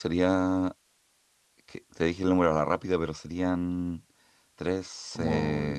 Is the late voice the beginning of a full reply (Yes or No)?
Yes